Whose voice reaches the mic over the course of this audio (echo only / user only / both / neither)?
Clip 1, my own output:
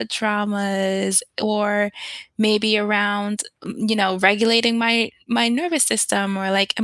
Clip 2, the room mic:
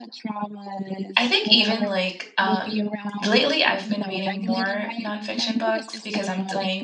both